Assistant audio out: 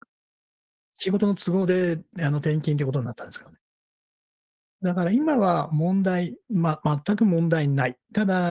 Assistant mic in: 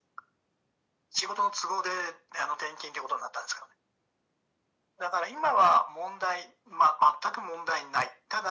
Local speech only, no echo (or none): none